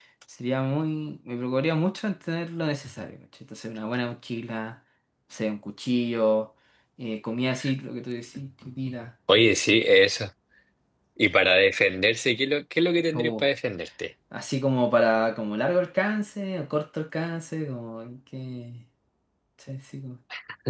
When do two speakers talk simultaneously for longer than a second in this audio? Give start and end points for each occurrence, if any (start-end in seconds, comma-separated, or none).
none